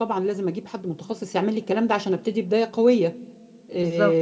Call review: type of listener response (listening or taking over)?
listening